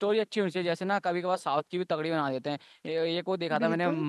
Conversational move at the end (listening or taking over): listening